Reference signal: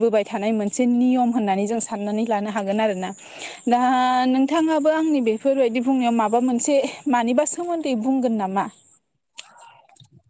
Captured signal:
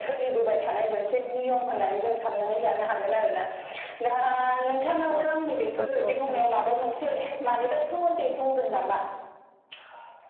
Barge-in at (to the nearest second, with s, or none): 5 s